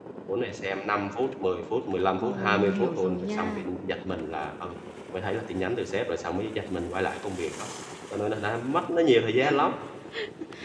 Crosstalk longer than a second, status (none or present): present